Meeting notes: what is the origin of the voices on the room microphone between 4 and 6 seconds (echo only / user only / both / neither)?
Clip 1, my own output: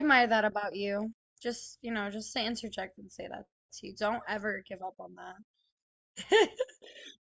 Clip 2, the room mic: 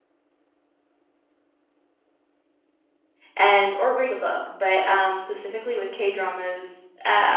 user only